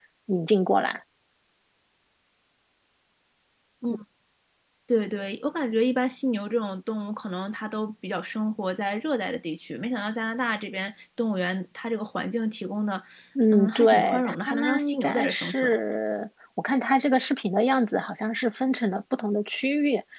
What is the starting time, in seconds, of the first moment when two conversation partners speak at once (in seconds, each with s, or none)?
13.5 s